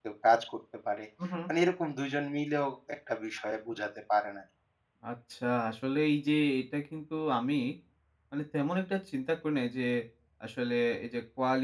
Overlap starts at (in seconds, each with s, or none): none